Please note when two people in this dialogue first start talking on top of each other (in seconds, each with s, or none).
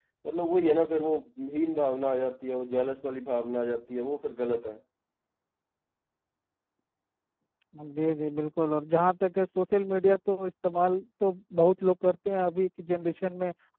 none